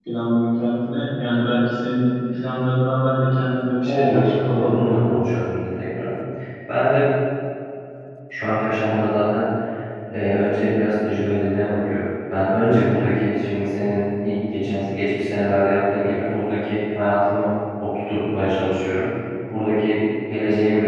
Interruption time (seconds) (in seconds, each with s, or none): 3.9 s